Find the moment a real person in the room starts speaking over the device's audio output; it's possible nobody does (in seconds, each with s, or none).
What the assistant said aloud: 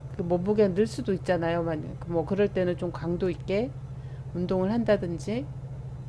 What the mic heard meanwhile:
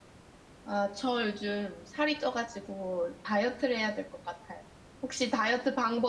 0.6 s